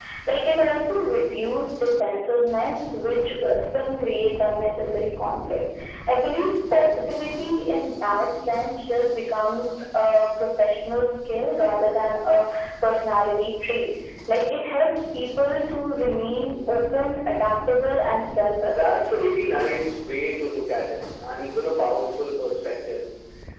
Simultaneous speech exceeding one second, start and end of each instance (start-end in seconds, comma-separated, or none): none